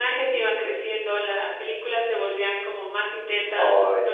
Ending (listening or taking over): listening